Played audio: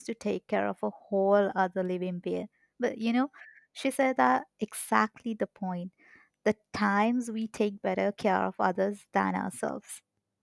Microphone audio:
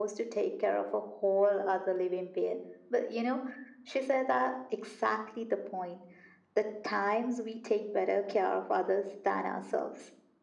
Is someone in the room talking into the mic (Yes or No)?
No